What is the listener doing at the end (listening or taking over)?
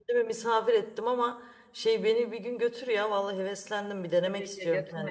taking over